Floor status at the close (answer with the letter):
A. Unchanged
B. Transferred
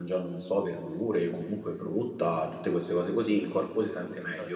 A